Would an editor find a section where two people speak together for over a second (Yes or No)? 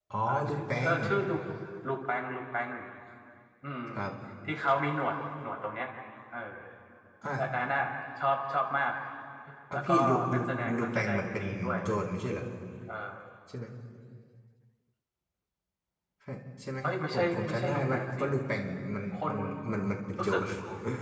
Yes